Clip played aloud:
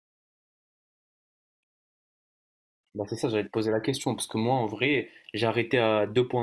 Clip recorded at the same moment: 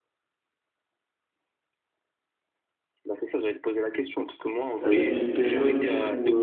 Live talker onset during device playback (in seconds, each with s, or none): 4.8 s